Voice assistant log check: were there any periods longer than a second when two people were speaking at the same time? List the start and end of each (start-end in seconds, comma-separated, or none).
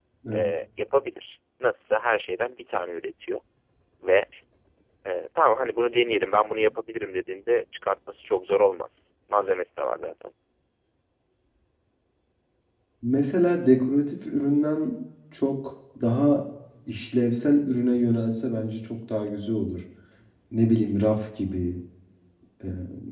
none